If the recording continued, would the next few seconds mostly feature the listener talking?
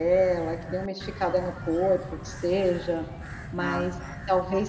No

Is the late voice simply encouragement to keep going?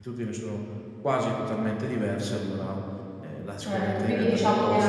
No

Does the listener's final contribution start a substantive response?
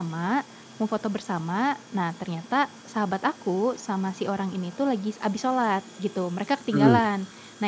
No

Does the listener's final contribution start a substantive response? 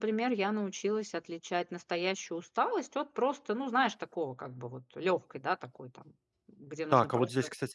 Yes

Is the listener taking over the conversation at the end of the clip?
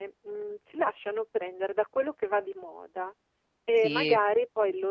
No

